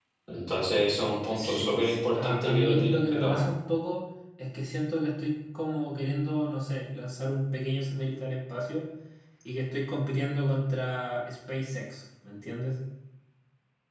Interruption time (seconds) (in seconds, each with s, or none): 1.4 s